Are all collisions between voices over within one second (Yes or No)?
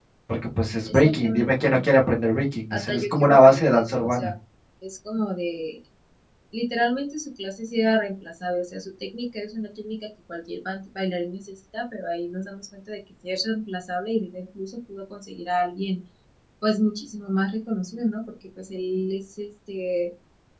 No